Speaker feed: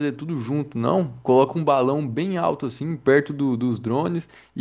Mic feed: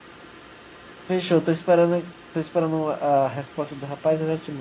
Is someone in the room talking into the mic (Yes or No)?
Yes